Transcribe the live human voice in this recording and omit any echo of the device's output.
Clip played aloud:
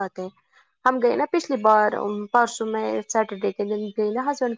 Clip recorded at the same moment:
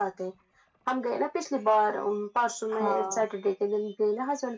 ہاں

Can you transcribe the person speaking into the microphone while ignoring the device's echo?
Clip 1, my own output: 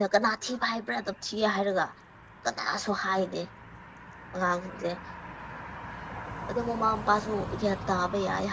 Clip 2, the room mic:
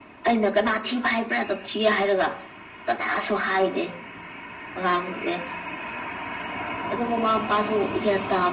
none

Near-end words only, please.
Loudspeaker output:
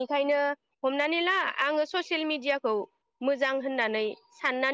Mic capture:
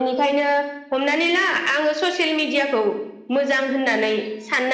none

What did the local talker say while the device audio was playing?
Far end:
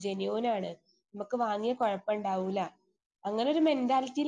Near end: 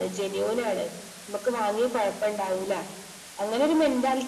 none

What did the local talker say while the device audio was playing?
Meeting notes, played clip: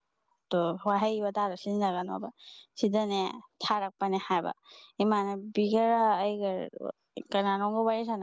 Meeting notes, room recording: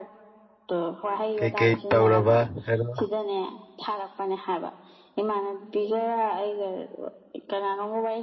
ꯀꯩ-ꯀꯩ ꯇꯧꯔꯕ ꯍꯥꯏꯔꯣ

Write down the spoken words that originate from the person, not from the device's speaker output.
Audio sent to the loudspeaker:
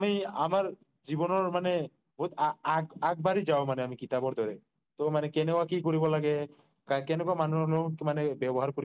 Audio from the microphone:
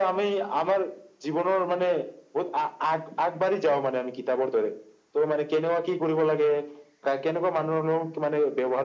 none

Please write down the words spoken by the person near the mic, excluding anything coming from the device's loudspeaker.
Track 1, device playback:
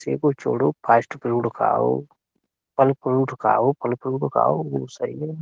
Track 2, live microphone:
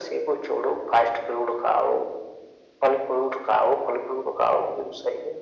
none

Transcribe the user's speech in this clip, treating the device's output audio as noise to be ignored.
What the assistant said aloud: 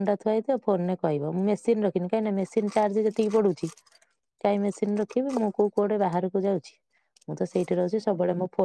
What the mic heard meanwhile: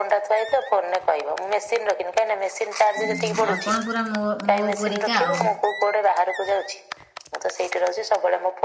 ହୁଁ ଆପଣ ପୁରା ମୋ ମୋ ପରରିକା ଆଉ

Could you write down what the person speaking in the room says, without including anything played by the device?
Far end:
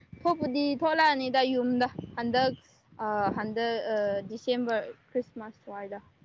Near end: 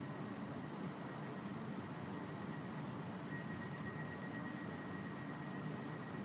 none

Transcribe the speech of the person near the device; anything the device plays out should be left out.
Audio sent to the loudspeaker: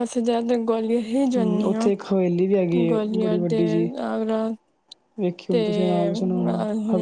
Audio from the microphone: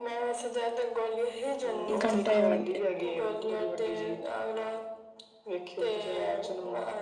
ਇੱਕ ਘੰਟੇ ਬਾਅਦ

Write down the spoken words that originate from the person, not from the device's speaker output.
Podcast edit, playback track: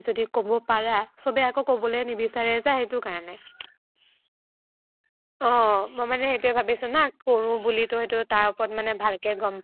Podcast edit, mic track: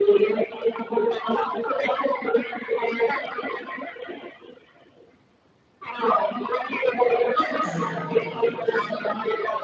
অহম তেনেকে কিনা বেছা।

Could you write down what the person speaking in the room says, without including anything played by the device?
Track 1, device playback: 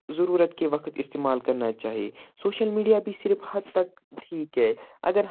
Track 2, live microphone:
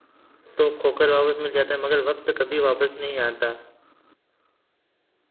تو کھو کر واپس مل جاتا ہے مگر وقت کبھی واپس نہیں آتا

